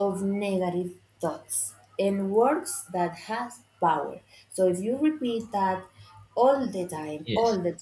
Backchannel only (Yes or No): Yes